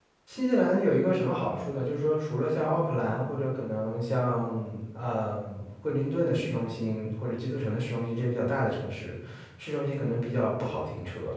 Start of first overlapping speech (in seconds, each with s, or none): none